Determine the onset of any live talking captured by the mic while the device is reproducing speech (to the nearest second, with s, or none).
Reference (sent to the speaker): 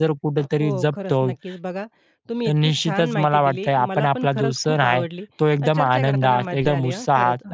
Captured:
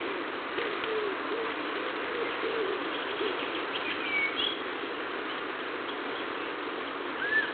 none